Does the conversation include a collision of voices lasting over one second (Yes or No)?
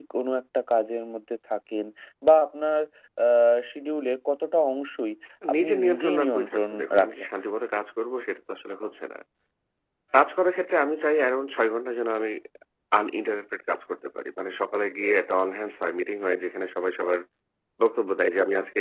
Yes